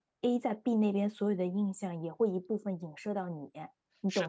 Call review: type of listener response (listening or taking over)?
taking over